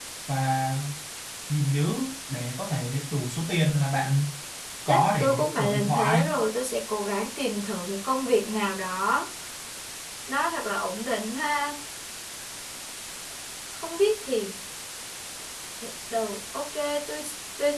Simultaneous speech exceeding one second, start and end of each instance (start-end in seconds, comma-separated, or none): 4.9-6.3